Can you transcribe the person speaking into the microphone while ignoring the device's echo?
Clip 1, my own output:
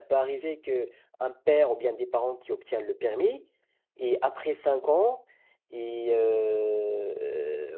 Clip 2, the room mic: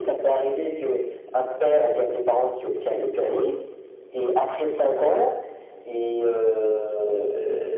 none

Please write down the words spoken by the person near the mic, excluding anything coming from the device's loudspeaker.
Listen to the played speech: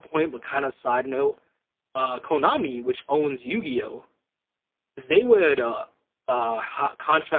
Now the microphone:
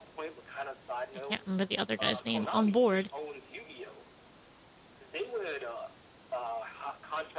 I can't remember the other guy's name, on board,

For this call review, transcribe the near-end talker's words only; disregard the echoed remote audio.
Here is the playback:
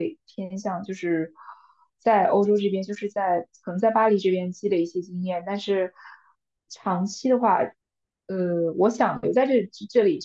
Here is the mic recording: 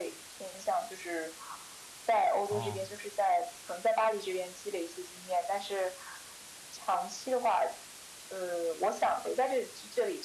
哦，

